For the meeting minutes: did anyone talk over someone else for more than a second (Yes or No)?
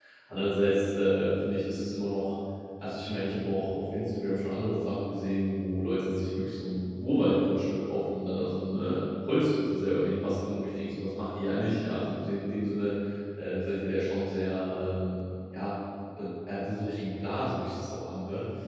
No